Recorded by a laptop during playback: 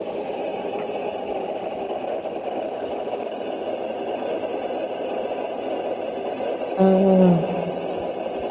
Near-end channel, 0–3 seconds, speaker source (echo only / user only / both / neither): neither